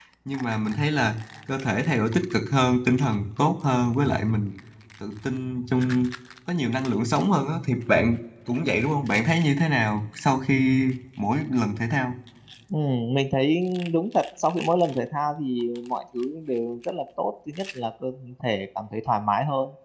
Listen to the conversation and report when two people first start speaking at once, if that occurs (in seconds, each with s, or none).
none